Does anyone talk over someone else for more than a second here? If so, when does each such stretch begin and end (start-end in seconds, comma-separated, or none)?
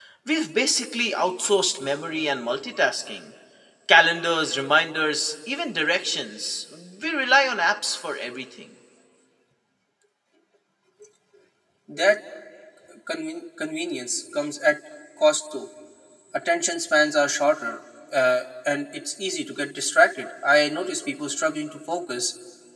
none